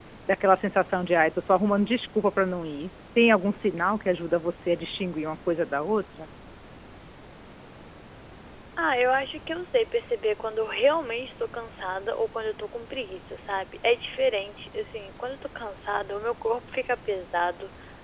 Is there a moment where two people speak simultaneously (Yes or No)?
No